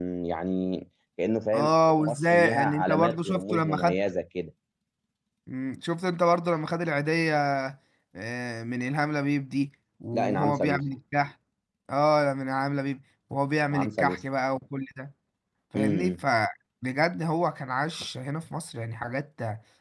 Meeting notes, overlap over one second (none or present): present